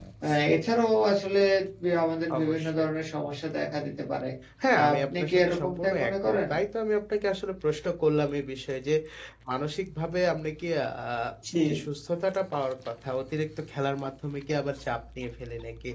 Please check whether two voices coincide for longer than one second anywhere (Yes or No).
Yes